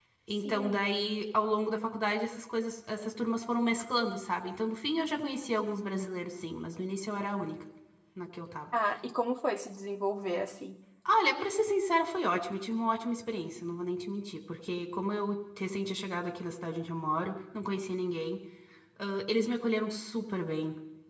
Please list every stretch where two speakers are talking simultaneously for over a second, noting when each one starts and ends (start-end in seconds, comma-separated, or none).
none